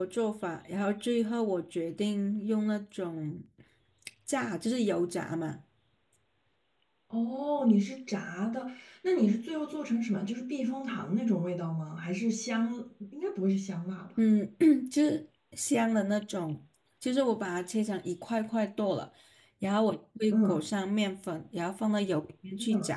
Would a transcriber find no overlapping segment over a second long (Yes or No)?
Yes